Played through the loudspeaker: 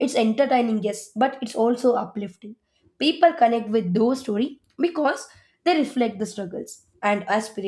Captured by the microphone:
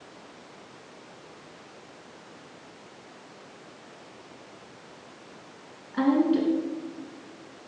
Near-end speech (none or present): present